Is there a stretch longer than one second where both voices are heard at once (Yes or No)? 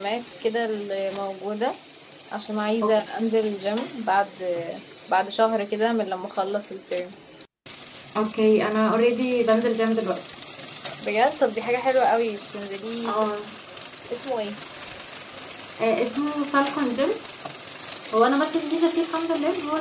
No